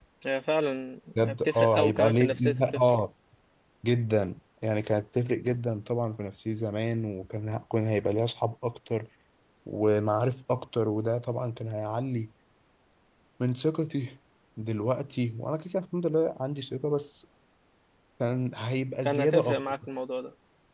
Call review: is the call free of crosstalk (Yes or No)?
No